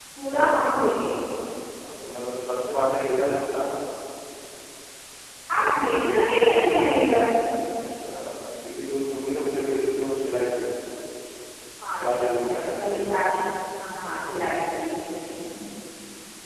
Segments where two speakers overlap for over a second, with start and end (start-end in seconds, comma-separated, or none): 12.0-13.3